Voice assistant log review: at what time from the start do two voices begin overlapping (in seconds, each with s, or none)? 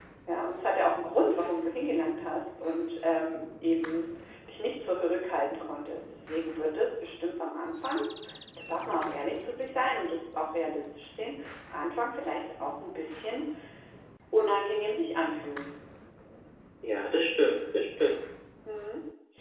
none